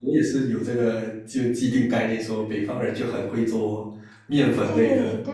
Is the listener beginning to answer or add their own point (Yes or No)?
Yes